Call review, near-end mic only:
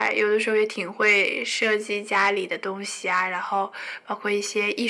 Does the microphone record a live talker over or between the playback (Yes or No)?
No